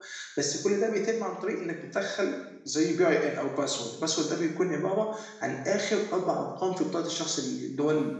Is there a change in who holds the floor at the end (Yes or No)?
Yes